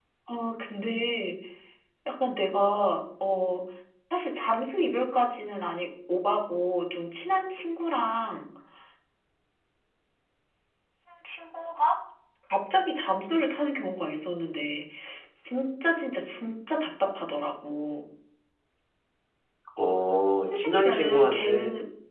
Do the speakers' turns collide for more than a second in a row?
Yes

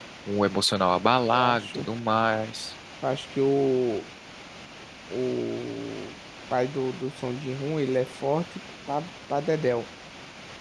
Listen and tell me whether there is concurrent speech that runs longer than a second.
No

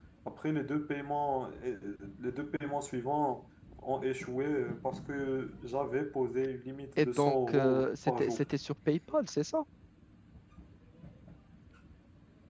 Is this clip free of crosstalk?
No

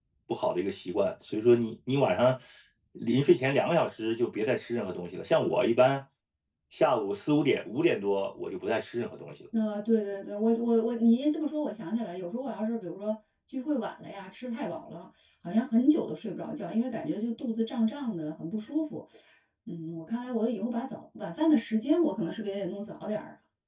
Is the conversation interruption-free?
Yes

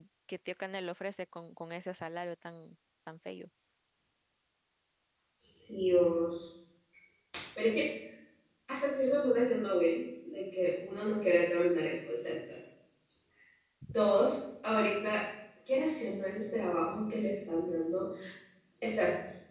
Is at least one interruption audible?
No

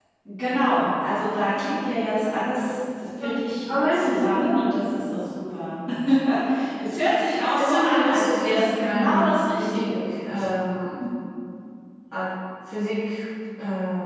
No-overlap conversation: No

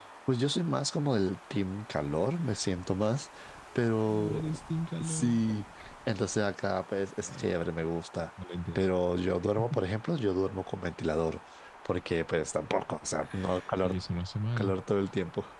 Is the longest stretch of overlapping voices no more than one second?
Yes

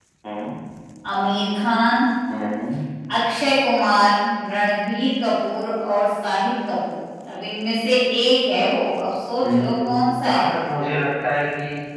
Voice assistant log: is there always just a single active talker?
No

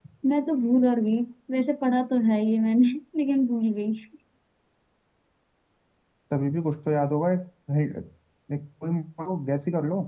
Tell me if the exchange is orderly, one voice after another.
Yes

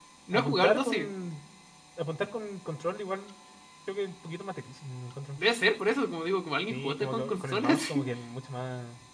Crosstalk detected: Yes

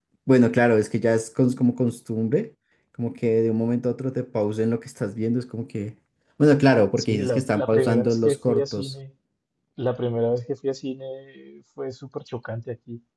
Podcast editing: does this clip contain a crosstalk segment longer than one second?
Yes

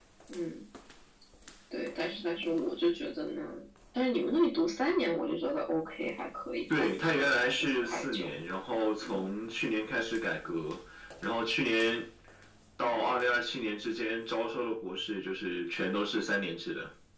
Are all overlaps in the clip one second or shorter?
No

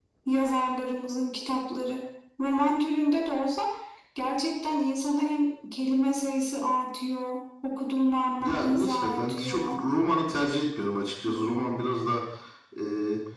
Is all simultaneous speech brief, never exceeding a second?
No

